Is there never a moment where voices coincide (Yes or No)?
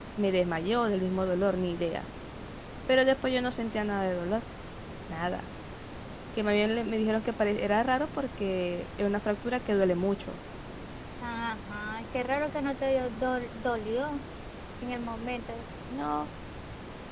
Yes